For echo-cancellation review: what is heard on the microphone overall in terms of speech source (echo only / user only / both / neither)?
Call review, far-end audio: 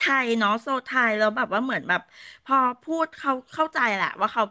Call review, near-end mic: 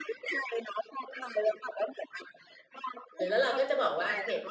both